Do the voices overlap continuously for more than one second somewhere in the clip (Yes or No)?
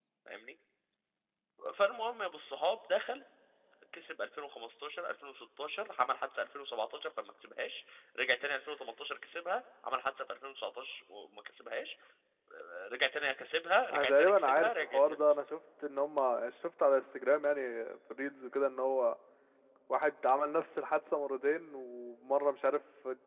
Yes